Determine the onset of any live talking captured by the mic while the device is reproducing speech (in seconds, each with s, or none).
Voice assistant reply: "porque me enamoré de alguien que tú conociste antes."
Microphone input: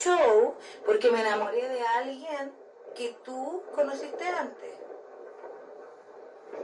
none